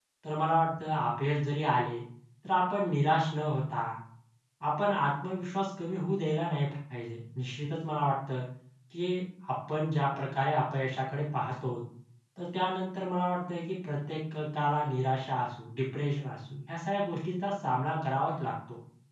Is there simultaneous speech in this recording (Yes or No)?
No